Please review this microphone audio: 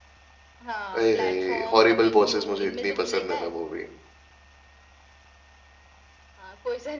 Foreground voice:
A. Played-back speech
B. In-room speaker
B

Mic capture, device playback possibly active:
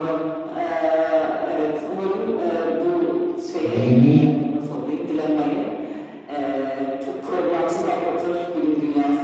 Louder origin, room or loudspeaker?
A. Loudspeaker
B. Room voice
B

